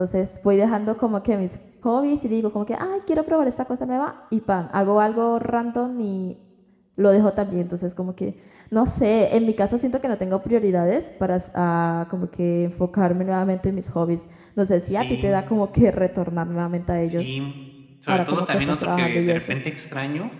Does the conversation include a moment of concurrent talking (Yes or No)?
Yes